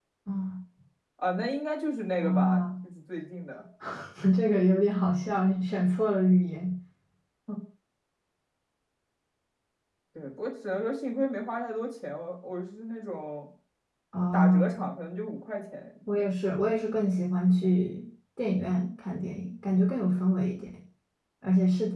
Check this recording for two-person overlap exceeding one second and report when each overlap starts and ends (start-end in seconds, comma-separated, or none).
none